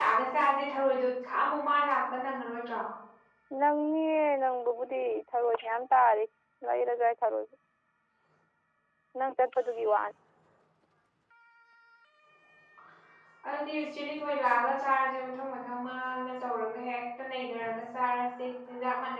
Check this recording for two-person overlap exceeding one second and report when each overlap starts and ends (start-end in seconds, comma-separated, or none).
none